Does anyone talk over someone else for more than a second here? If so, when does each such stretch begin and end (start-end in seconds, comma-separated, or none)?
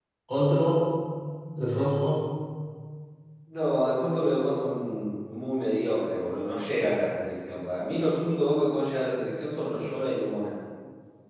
none